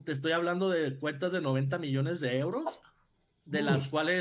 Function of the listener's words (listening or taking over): listening